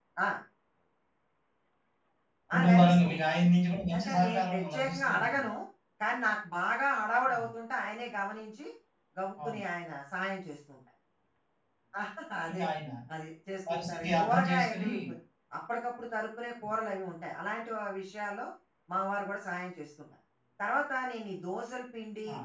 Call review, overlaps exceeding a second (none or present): present